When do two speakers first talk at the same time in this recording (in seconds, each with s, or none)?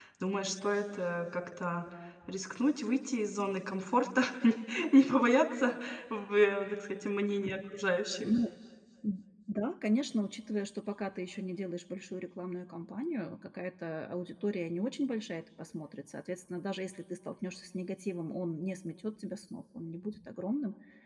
none